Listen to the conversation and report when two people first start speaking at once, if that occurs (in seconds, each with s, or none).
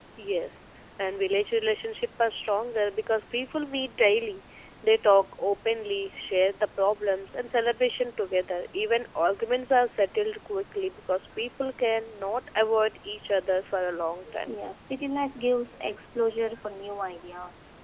none